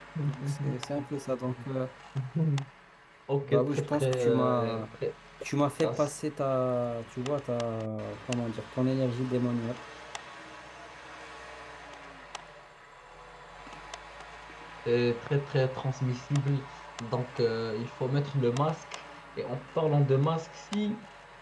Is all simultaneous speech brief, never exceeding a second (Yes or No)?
No